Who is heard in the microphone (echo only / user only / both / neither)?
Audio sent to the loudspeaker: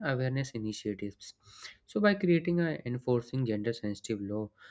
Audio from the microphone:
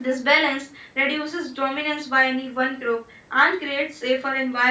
user only